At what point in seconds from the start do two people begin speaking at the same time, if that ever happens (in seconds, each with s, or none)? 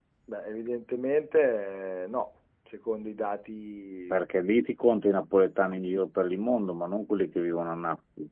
none